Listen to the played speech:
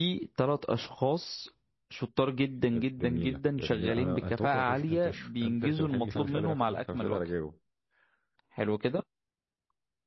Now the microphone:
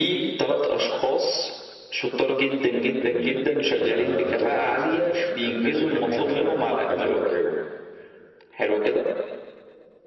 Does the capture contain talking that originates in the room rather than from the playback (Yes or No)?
No